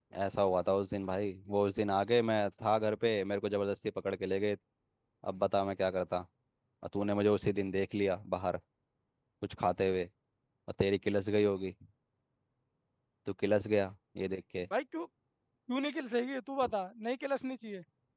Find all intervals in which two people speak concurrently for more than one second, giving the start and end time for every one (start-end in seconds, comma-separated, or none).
none